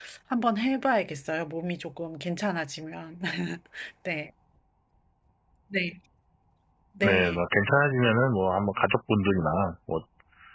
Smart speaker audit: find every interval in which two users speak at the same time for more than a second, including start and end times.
none

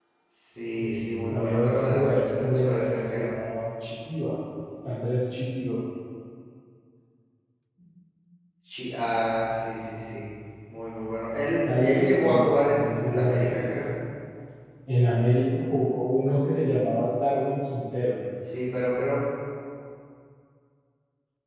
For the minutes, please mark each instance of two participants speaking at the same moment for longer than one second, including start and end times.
0.8-3.3, 11.6-13.9

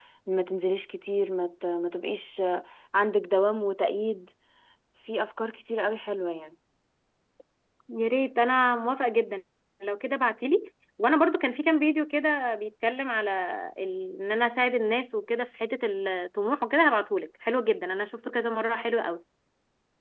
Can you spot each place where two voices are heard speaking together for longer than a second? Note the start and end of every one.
none

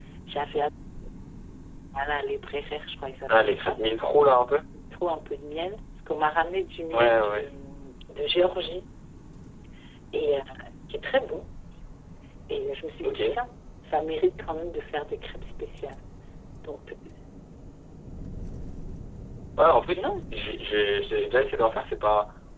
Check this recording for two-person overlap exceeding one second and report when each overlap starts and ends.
none

